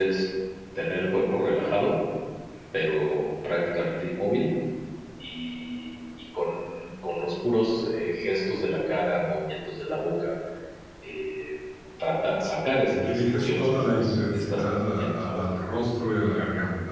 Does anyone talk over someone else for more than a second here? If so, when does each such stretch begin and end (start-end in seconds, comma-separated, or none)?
13.1-15.4